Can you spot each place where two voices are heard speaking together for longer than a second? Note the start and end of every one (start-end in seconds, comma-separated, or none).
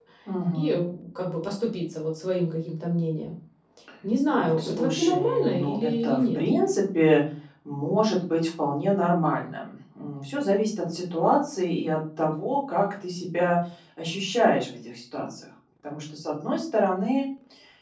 4.3-6.4